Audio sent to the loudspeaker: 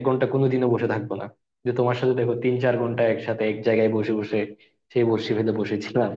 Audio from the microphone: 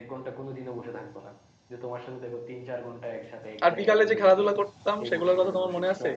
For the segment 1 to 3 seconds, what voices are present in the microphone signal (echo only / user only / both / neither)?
echo only